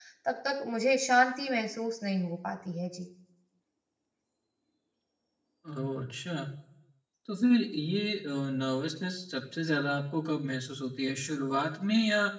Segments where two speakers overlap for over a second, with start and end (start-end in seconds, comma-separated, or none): none